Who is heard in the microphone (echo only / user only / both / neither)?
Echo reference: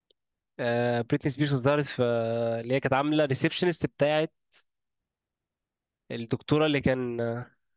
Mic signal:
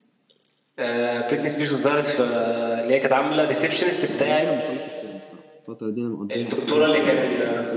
both